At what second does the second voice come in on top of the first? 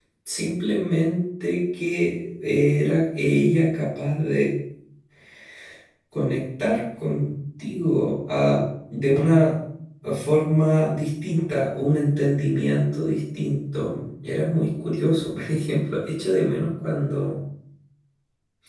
none

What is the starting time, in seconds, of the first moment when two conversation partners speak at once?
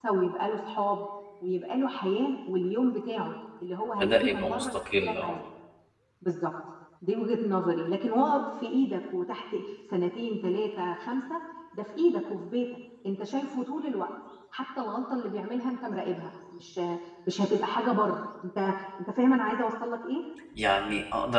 4.0 s

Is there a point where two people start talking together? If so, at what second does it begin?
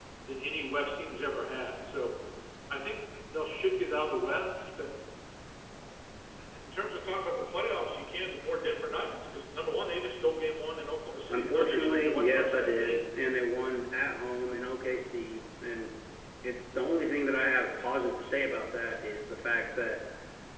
11.3 s

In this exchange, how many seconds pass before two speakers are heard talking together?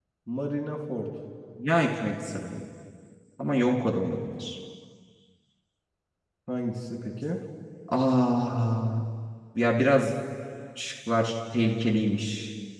none

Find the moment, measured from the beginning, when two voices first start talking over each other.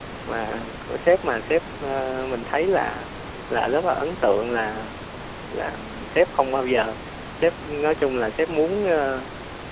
none

